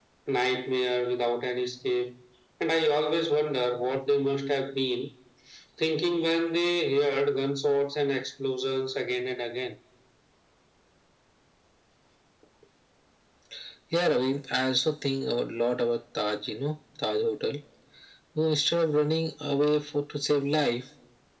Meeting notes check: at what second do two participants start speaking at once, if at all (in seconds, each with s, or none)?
none